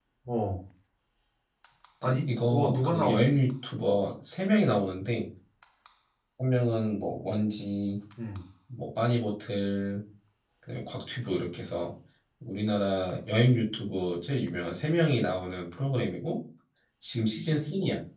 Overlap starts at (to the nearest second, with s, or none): 2 s